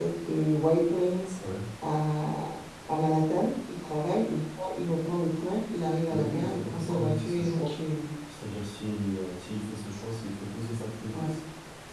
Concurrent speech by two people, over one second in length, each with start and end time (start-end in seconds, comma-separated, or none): 6.1-7.7